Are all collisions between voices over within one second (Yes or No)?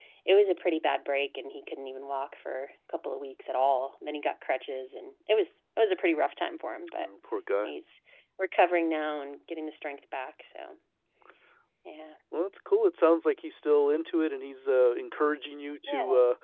Yes